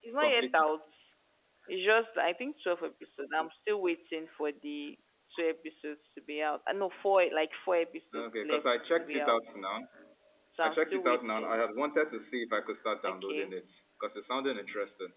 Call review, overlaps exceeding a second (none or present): present